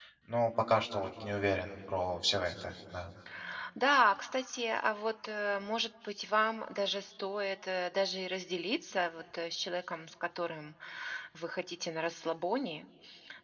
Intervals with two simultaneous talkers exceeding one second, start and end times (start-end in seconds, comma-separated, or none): none